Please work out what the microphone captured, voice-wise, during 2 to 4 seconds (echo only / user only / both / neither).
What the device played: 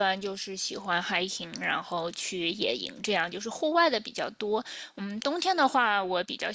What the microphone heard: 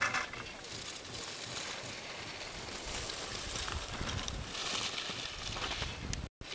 neither